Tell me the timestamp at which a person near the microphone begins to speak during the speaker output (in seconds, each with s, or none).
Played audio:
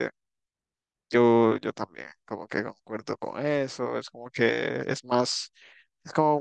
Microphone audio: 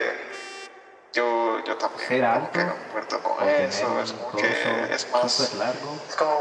1.9 s